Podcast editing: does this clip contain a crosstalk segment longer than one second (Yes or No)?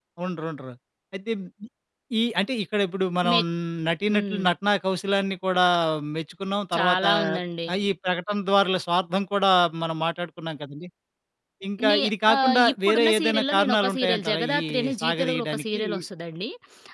Yes